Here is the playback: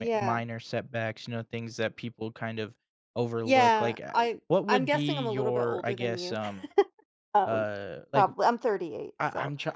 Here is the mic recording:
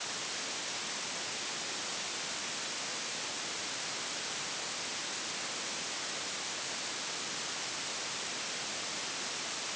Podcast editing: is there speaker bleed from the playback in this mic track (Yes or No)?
No